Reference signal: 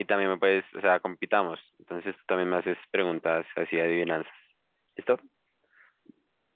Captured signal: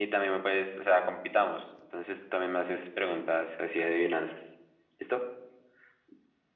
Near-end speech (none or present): none